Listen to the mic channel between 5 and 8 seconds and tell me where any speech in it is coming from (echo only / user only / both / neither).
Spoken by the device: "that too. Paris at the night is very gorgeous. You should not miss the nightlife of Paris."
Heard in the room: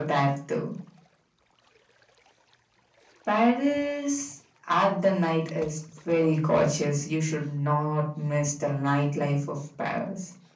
echo only